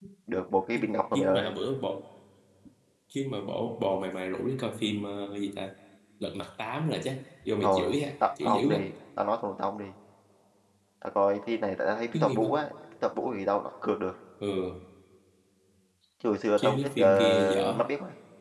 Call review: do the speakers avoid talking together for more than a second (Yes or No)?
No